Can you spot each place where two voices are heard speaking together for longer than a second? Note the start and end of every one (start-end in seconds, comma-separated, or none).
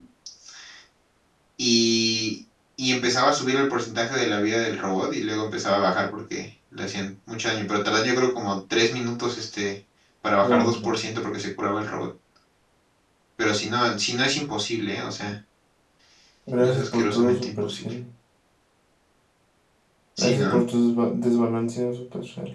16.6-17.8